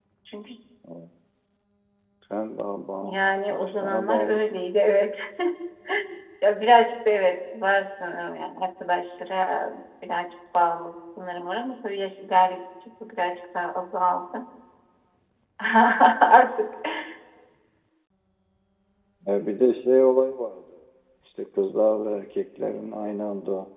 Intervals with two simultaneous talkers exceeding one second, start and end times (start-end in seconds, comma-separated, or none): 3.0-4.6